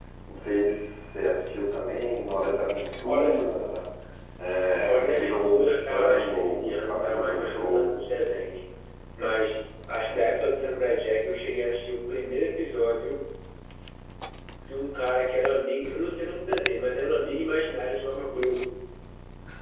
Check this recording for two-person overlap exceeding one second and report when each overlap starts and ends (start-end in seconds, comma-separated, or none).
4.9-7.9